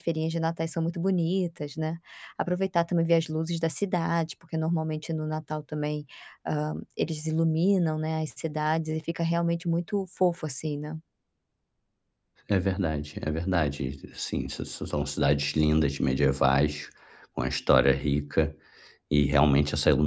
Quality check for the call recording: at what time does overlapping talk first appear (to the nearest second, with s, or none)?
none